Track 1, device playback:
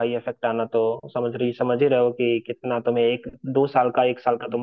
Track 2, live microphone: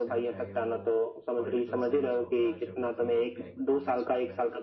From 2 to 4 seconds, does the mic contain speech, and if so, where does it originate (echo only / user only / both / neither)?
both